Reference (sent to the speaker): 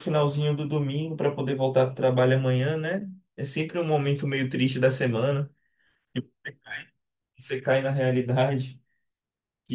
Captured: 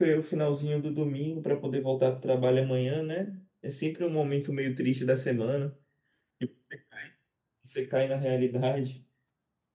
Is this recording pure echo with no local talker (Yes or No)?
Yes